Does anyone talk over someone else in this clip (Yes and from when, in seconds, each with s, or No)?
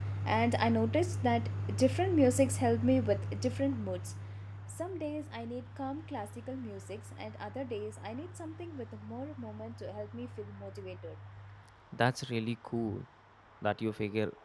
No